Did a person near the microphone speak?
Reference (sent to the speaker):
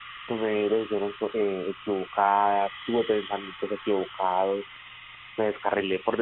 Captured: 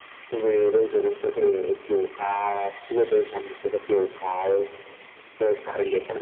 No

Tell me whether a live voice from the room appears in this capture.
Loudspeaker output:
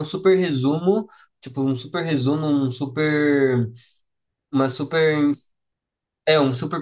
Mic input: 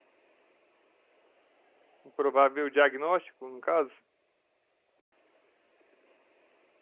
Yes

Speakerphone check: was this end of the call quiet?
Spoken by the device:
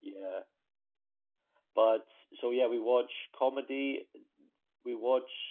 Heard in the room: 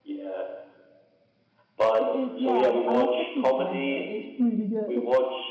No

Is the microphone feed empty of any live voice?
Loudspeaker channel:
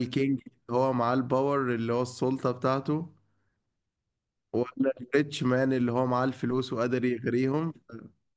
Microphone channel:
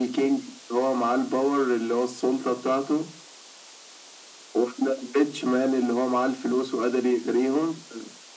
Yes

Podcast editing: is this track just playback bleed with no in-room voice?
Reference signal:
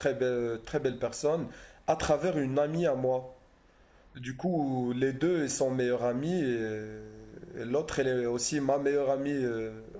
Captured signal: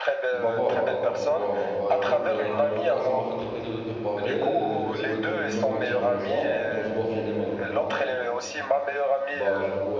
No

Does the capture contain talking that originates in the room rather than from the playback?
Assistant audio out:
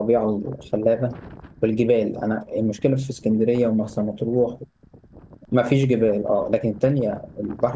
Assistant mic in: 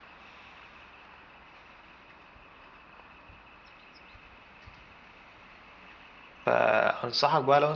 Yes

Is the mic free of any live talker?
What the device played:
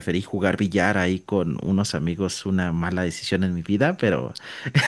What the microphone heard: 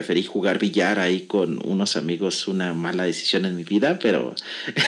Yes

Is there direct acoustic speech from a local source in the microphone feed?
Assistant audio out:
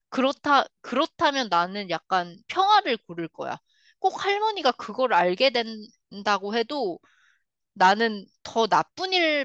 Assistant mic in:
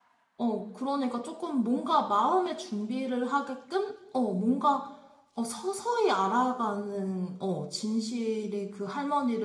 Yes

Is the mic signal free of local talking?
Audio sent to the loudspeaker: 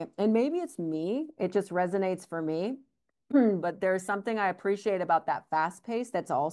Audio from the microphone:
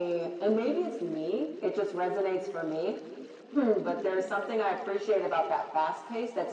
Yes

